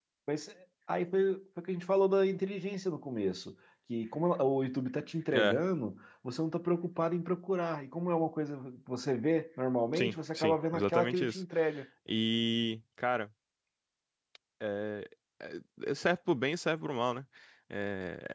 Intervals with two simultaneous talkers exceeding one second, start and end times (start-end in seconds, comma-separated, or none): 9.9-11.4